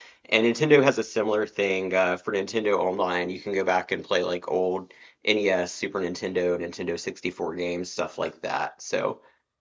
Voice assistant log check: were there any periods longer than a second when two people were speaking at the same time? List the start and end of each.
none

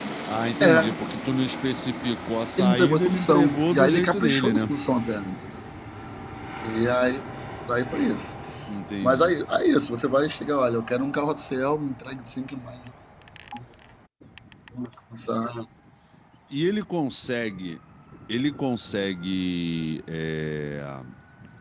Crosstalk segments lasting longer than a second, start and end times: 2.6-4.7

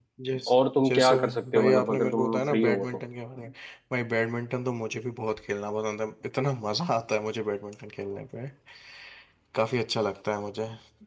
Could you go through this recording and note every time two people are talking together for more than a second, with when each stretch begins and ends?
0.5-3.0

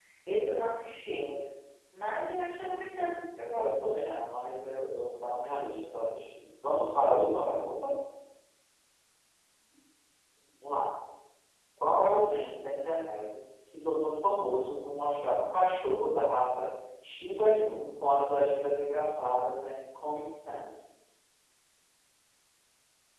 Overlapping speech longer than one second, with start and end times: none

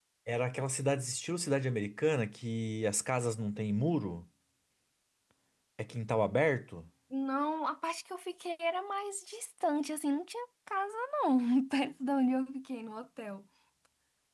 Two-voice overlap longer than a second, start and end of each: none

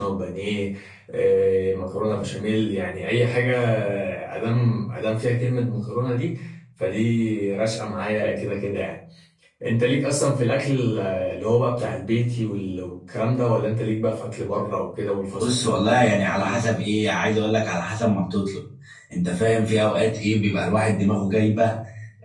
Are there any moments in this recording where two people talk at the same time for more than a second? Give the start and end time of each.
15.4-16.7

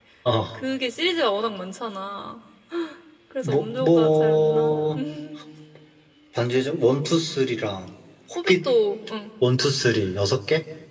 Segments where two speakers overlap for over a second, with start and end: 3.4-4.8

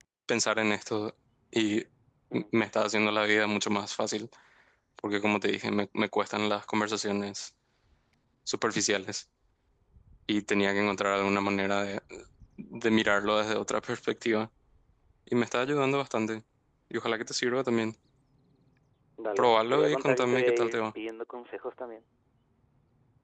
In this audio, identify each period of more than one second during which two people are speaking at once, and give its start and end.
19.4-20.8

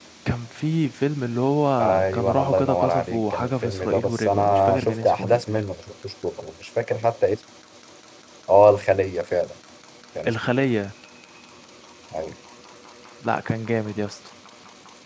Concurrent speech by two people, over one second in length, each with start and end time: 1.8-5.6

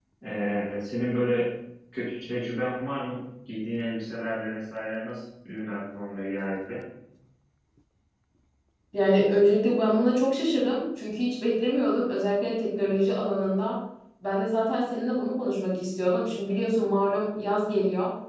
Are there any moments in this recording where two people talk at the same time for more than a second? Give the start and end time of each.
none

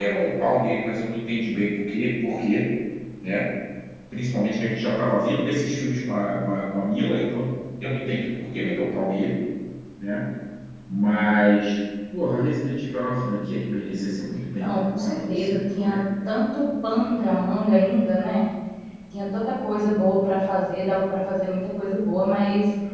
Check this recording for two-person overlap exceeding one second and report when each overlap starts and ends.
14.6-16.0

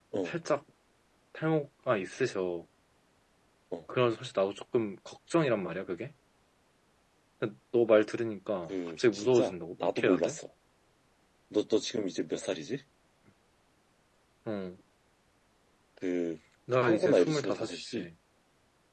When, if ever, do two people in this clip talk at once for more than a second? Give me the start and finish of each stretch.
8.7-10.4, 16.7-18.1

